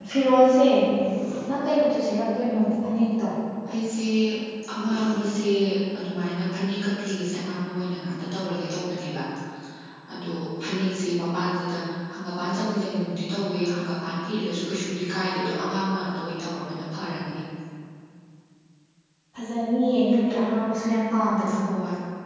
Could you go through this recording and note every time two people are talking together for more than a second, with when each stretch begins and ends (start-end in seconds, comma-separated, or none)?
none